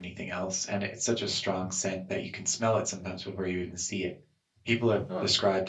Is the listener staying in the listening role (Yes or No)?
Yes